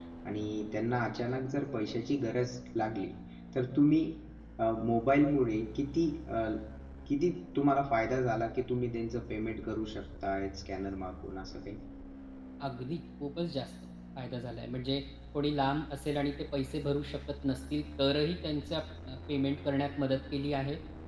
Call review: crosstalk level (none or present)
none